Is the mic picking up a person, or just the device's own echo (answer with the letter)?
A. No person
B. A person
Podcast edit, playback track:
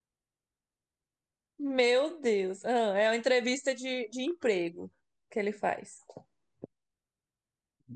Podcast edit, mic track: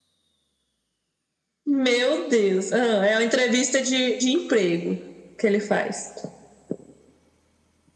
A